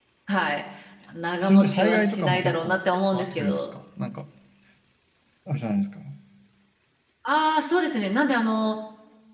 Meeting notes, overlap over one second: present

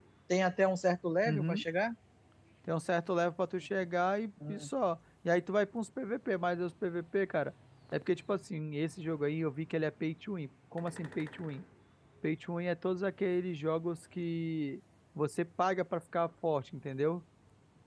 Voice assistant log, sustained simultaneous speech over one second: none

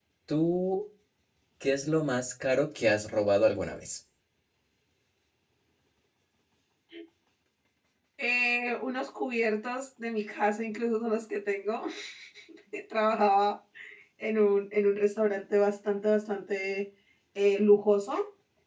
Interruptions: none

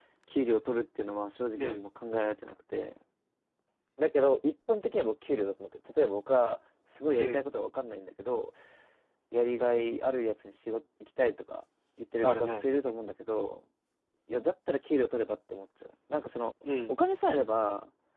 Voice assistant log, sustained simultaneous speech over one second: none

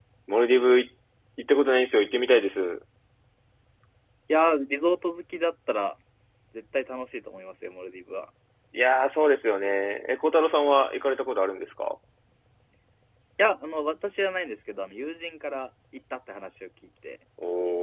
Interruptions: none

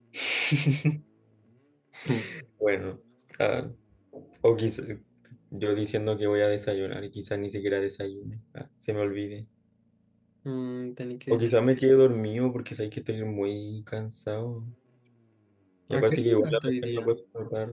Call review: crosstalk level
present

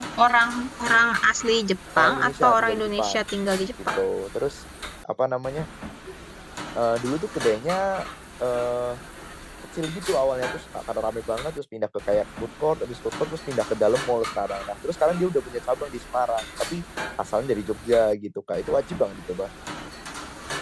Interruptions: present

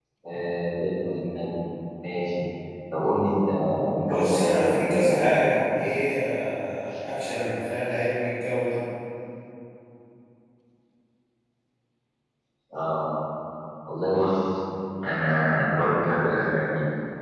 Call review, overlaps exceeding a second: present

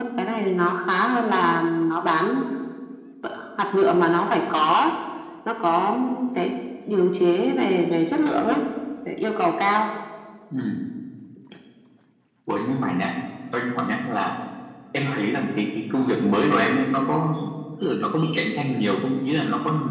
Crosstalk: none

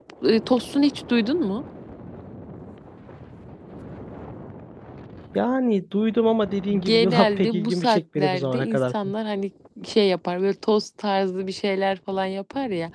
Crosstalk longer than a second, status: present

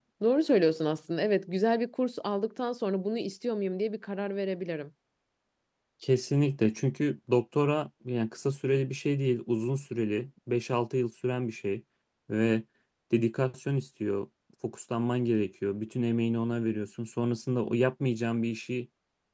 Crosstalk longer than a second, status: none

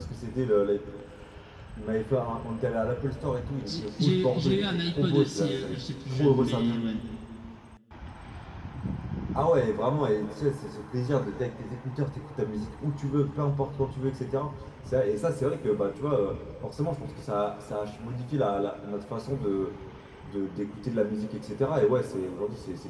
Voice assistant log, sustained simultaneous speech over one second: present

